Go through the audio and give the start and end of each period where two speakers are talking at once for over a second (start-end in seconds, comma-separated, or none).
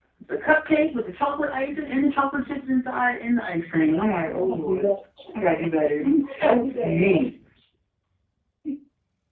6.0-7.2